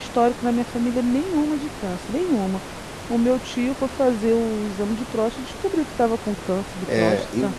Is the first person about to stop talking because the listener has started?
Yes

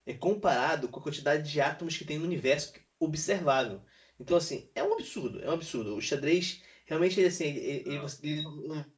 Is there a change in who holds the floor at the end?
No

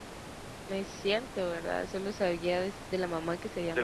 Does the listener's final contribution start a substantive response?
Yes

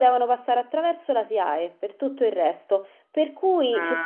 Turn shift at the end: No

